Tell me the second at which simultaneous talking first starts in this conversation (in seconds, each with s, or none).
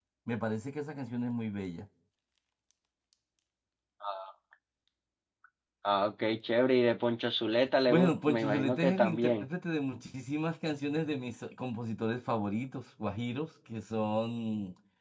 7.9 s